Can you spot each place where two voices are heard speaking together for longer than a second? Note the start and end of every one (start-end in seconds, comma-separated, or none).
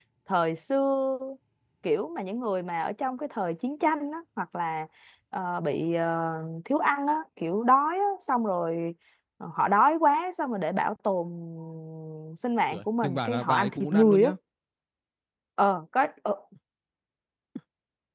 12.7-14.3